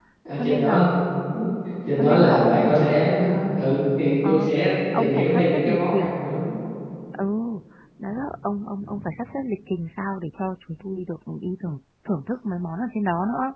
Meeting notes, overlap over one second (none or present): present